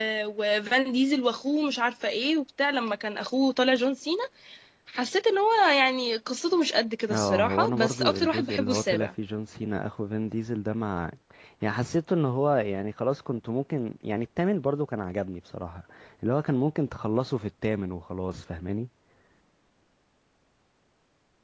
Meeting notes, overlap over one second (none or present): present